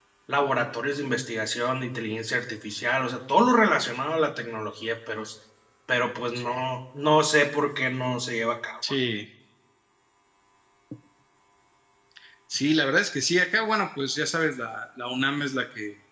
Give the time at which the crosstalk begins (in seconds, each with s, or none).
none